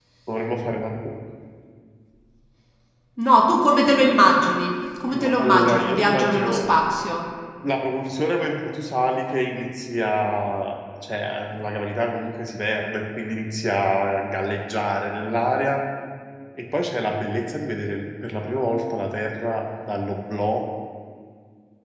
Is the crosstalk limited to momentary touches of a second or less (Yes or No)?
No